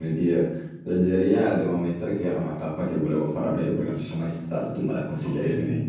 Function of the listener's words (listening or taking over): taking over